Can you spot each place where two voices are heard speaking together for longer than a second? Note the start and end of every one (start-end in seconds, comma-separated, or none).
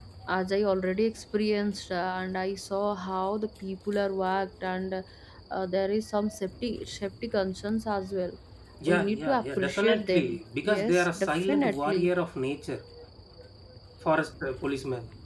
8.9-12.1